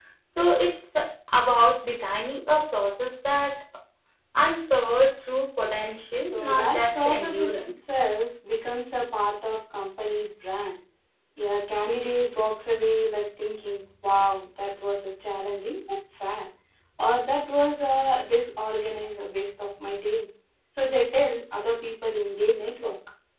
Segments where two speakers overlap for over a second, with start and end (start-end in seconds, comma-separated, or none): 6.3-7.5